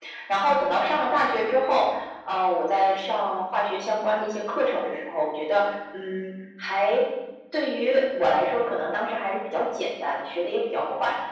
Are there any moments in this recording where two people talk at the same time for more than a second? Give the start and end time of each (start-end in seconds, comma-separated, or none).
none